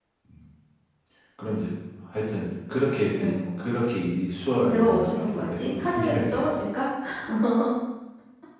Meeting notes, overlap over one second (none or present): present